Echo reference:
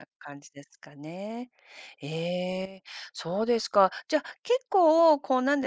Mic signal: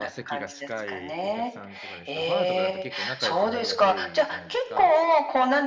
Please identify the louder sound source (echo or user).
echo